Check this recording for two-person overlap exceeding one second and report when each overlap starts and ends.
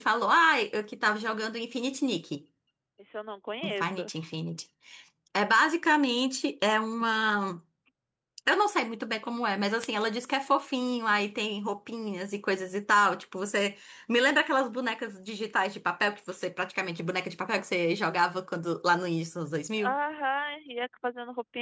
none

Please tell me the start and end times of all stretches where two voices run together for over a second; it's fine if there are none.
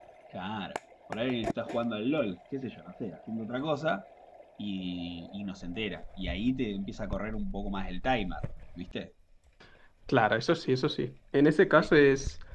none

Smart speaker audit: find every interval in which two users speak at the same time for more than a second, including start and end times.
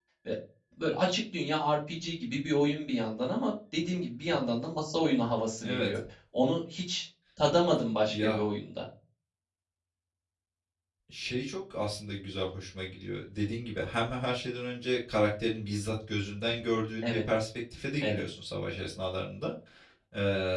none

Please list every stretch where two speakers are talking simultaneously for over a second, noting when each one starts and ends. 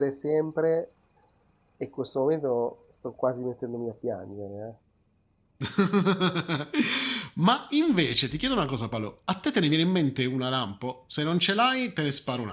none

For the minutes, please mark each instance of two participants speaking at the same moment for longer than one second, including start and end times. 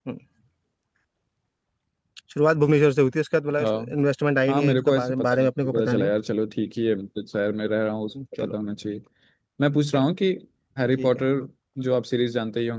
4.5-6.1

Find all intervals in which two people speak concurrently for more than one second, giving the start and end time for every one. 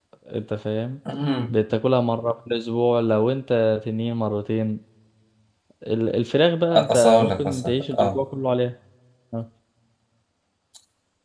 6.7-8.2

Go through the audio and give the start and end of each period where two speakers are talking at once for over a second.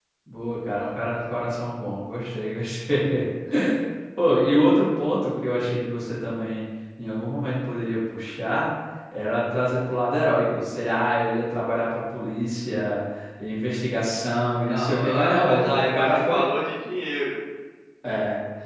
14.7-16.4

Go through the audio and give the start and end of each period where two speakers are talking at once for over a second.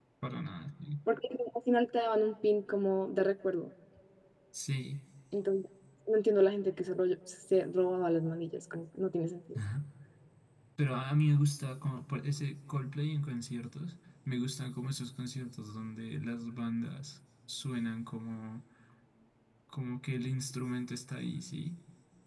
none

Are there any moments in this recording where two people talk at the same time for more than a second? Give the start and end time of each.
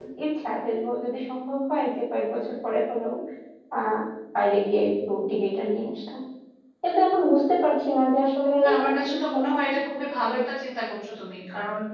none

